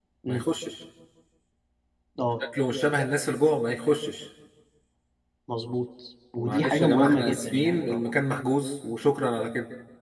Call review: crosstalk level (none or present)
present